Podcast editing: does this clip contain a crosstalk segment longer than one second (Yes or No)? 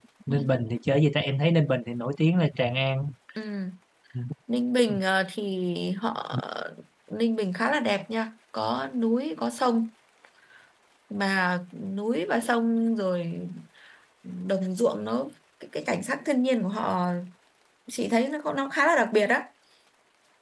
No